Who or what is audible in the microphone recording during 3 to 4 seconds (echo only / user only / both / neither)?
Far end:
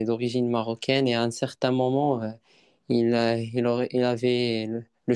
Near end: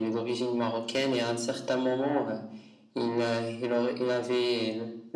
echo only